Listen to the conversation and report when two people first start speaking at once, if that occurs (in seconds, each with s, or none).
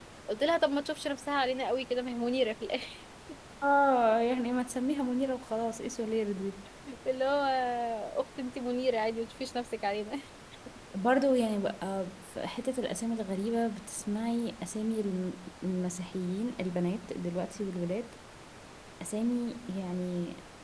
none